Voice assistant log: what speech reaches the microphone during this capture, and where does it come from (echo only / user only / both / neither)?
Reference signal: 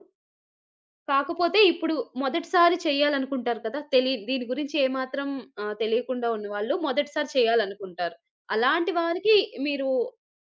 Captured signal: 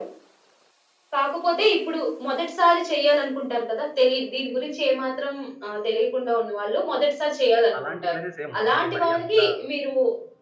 both